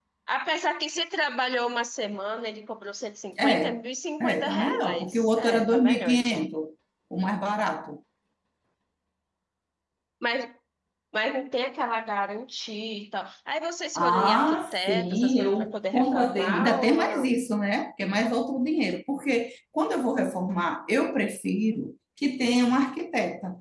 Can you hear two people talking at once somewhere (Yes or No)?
Yes